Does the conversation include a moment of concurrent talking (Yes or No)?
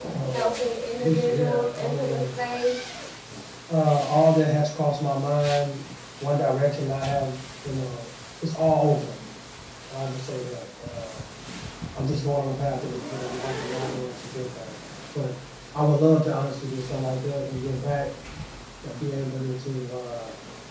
Yes